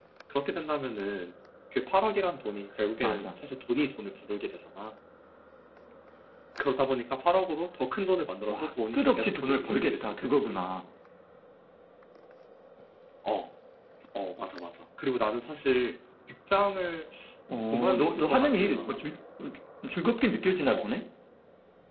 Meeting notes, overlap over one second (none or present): present